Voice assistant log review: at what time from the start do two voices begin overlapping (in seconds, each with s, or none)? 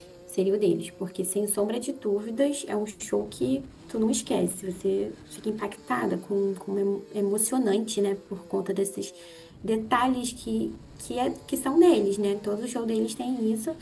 none